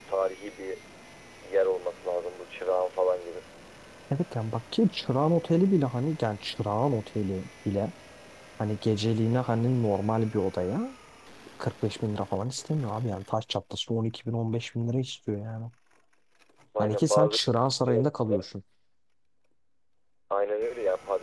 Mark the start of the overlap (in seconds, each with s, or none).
16.8 s